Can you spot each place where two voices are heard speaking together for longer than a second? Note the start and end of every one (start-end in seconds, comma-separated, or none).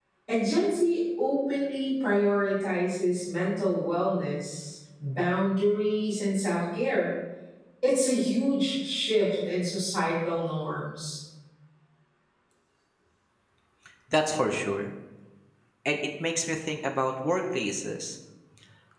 none